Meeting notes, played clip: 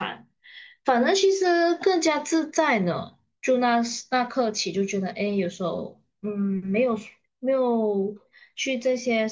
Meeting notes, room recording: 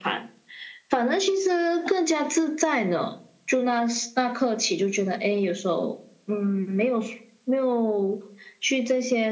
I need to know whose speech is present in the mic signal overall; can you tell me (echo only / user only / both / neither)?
echo only